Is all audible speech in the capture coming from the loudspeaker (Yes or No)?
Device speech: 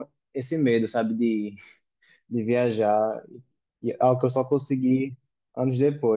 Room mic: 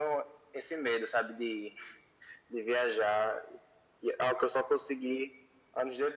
Yes